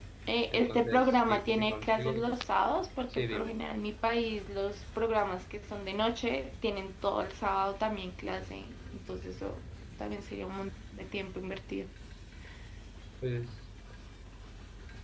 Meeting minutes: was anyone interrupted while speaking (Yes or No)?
Yes